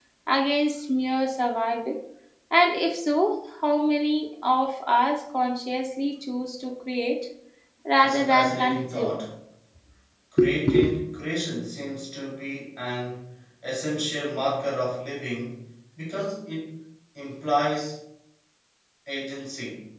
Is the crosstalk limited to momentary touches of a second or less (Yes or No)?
No